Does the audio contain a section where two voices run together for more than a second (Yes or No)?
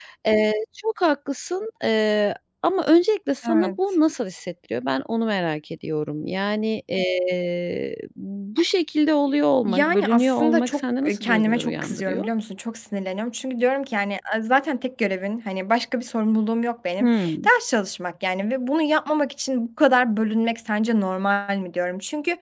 Yes